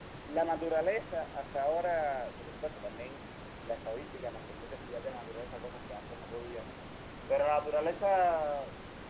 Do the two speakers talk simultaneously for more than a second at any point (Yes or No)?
No